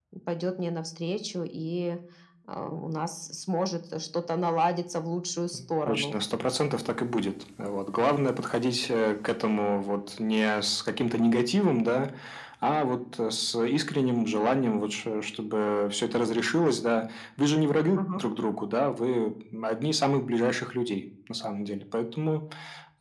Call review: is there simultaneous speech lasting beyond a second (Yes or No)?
No